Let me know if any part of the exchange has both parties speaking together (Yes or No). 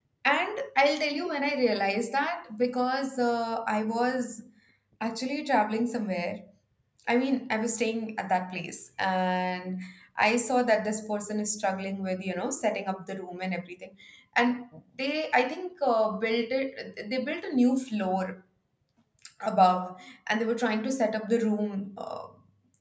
No